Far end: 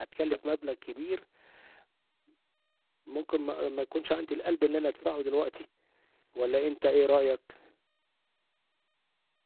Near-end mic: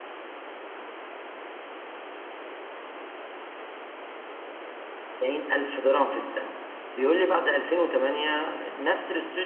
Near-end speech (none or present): present